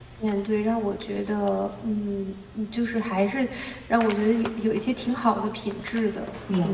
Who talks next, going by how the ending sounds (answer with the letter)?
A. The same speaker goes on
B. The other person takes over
B